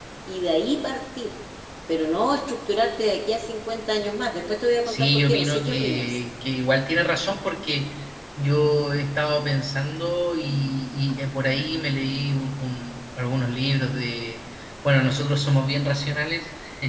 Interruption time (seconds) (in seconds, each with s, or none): 4.9 s